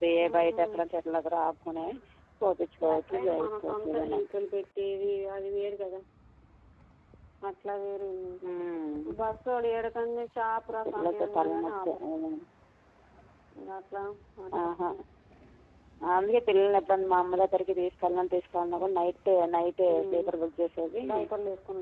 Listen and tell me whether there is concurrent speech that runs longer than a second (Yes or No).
Yes